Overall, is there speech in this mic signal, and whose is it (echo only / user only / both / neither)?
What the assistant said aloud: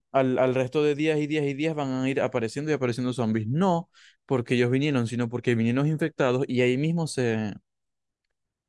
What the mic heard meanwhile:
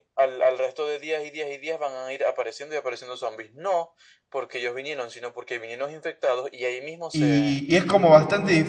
both